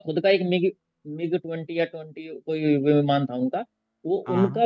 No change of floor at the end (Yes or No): Yes